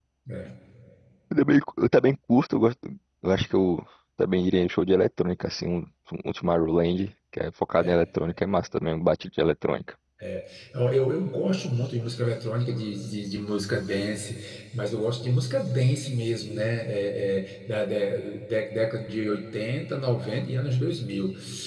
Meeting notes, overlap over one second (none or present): none